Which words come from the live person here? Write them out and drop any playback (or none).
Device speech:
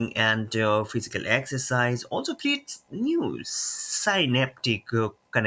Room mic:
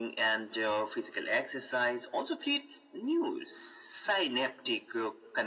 none